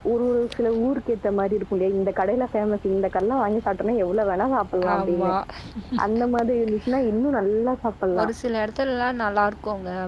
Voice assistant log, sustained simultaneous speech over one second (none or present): none